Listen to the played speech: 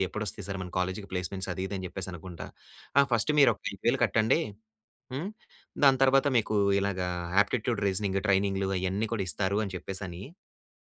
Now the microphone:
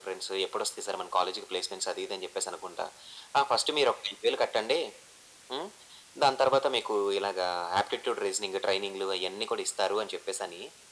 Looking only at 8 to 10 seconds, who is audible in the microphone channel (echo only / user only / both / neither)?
echo only